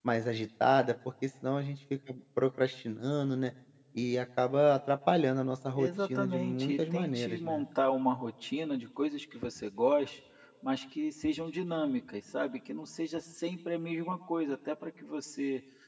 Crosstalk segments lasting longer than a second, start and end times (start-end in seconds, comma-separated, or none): 5.8-7.6